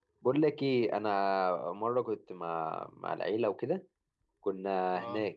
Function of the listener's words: listening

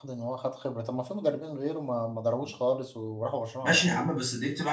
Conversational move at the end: taking over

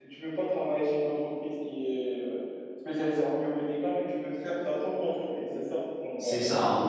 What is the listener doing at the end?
taking over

